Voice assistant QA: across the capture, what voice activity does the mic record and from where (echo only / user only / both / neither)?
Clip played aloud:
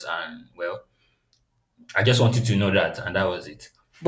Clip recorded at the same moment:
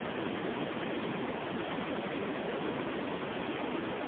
neither